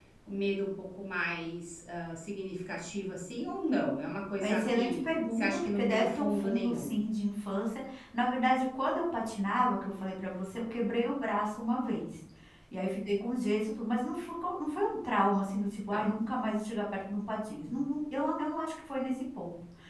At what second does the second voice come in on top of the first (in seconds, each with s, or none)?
4.4 s